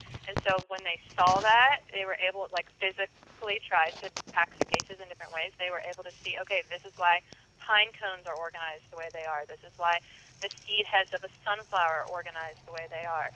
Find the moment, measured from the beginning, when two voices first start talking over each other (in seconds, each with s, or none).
none